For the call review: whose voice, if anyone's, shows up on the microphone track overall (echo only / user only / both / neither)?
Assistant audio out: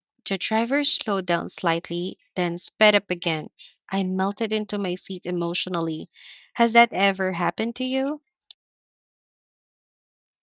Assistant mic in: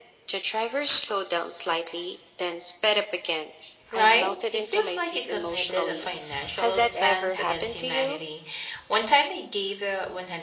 both